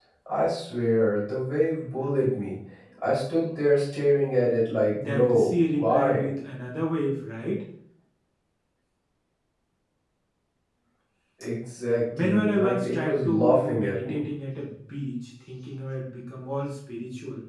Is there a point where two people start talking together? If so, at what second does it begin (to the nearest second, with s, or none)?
5 s